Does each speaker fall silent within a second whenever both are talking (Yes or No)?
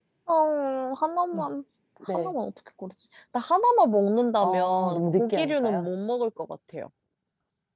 No